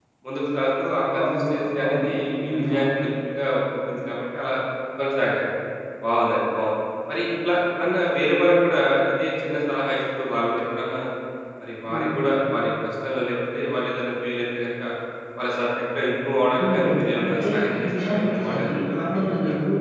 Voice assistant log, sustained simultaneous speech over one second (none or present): present